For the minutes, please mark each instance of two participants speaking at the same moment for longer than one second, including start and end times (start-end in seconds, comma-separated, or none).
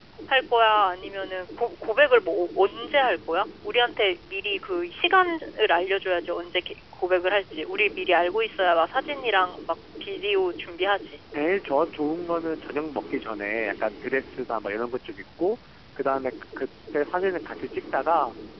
none